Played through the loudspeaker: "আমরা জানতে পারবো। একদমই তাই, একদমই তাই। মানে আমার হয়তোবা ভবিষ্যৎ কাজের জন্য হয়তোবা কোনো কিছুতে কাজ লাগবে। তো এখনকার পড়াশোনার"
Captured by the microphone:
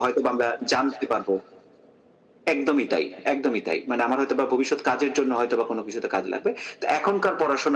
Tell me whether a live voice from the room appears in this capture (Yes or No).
No